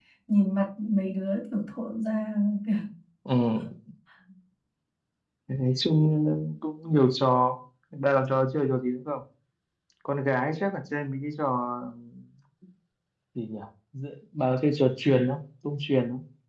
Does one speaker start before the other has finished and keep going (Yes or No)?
No